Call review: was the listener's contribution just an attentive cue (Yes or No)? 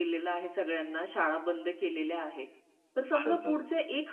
Yes